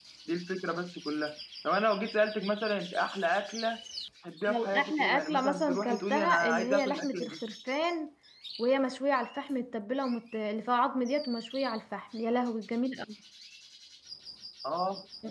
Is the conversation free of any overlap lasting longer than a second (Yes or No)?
No